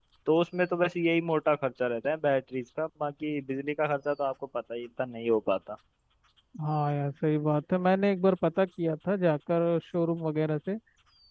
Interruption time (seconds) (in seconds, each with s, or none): none